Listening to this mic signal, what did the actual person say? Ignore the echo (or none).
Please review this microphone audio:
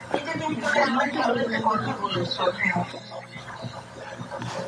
হ্যাঁ তো আমি যেটা বুঝলাম যে অফিসের